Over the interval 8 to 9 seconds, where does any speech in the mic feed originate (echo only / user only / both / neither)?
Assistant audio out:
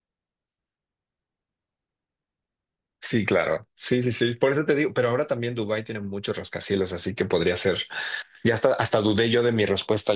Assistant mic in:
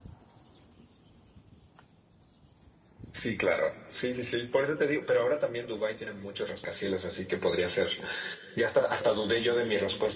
echo only